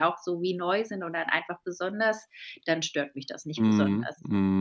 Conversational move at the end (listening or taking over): taking over